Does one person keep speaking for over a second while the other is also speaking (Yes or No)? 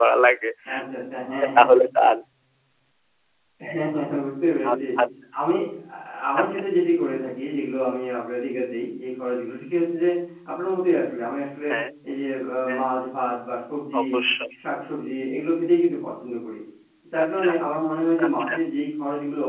No